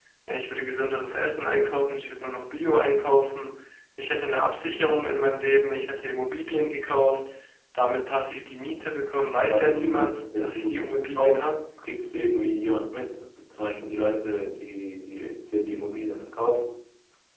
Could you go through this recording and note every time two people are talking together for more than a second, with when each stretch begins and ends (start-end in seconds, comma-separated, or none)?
9.5-11.5